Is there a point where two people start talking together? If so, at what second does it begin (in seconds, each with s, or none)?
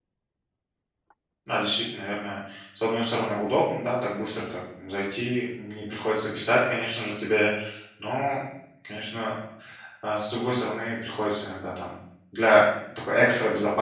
none